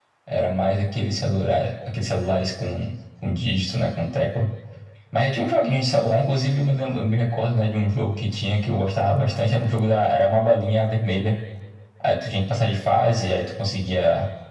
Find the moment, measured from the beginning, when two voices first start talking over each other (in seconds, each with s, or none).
none